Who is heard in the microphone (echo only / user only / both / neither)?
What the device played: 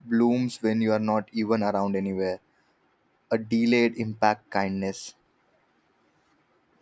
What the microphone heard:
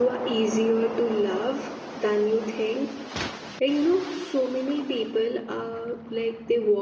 user only